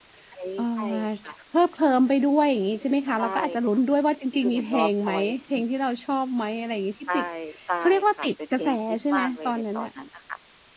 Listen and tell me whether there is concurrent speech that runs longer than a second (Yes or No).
Yes